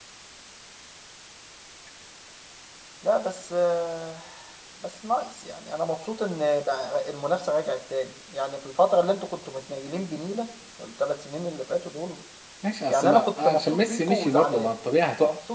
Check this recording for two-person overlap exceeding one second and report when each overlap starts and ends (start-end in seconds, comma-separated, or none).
12.9-14.7